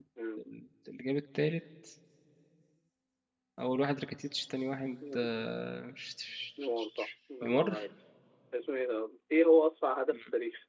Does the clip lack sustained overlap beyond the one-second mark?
Yes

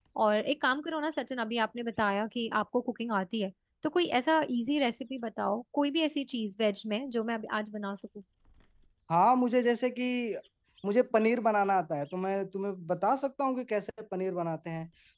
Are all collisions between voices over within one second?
Yes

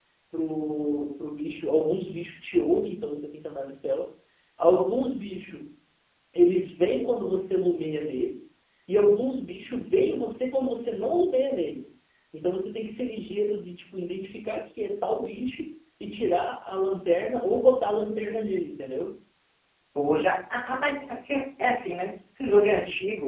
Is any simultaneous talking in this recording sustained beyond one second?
No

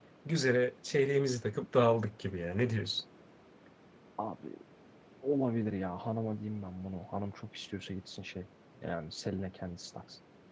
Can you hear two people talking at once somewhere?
No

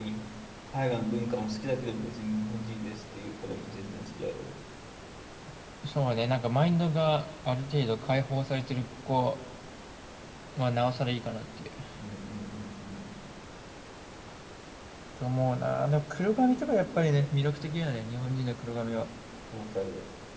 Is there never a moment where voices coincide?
Yes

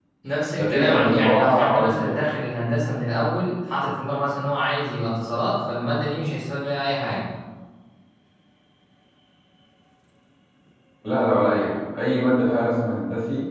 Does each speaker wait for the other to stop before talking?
No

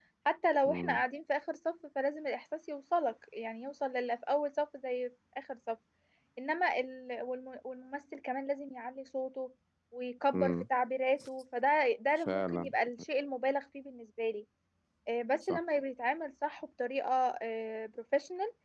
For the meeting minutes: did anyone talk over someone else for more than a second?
No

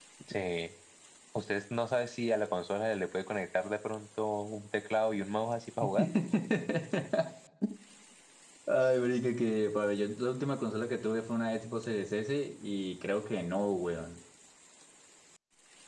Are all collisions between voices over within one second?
Yes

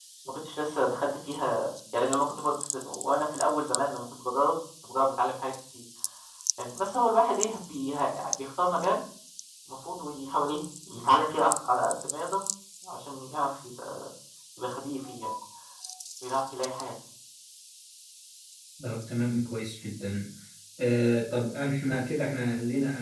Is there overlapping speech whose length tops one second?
No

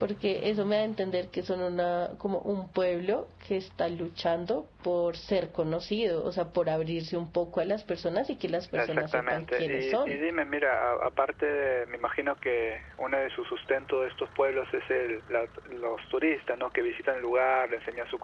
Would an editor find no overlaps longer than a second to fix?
No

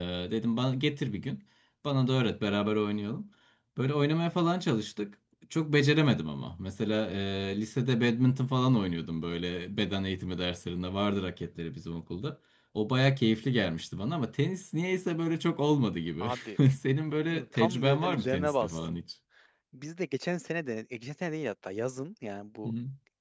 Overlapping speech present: Yes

